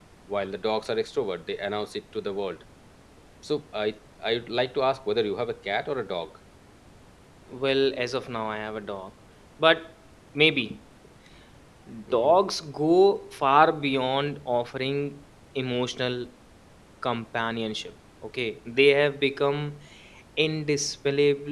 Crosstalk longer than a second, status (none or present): none